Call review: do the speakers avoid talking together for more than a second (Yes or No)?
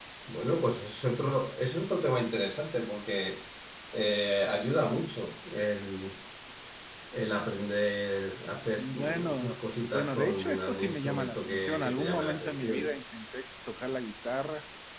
No